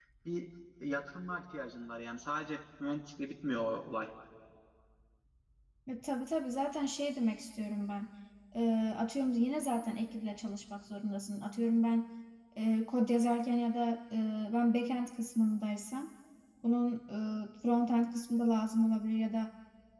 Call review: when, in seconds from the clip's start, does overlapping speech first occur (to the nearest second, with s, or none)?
none